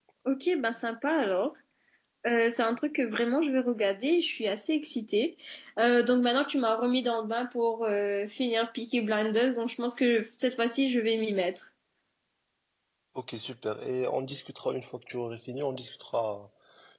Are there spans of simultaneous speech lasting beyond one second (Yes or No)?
No